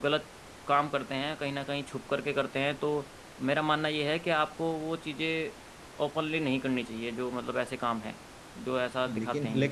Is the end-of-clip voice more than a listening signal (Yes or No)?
Yes